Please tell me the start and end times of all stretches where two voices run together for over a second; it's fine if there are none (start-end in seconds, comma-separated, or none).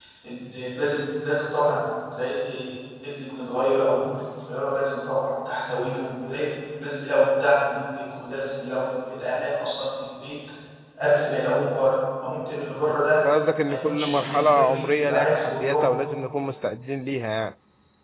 13.7-15.9